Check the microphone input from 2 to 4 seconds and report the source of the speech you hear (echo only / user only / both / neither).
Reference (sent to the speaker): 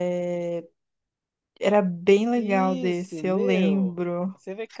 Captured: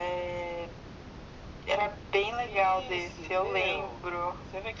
echo only